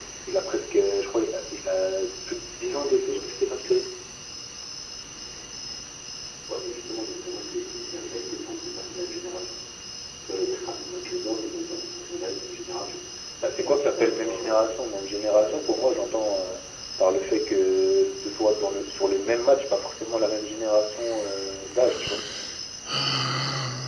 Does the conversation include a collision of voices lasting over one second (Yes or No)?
Yes